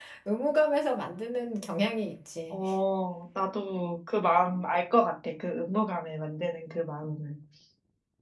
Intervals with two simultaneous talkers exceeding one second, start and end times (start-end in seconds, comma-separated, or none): none